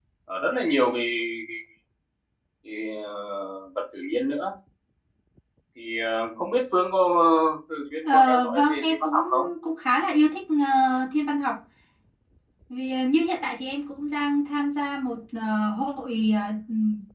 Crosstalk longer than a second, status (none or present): present